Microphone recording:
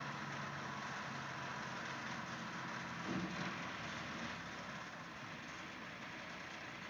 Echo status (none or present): none